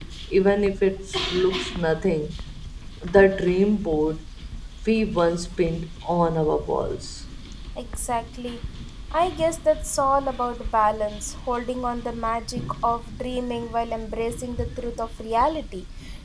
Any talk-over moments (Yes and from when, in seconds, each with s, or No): No